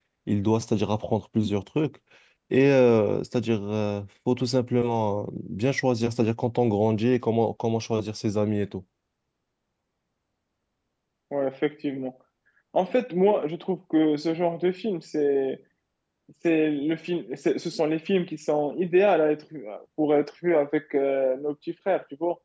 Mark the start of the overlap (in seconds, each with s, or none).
none